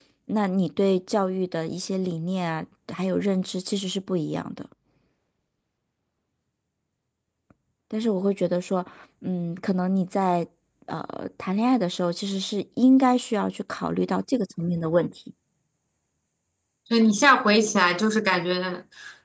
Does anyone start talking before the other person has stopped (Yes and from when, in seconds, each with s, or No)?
No